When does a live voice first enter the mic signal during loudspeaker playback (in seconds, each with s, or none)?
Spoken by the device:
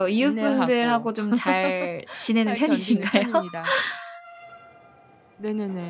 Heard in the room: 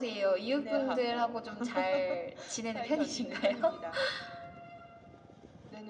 none